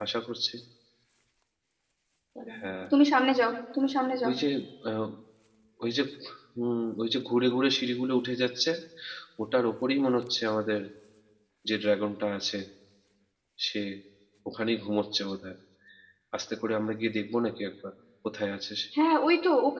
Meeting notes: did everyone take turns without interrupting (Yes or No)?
Yes